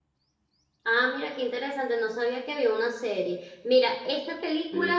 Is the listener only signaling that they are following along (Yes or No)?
Yes